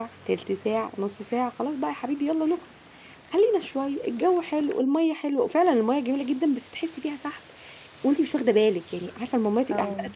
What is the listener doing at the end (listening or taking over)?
listening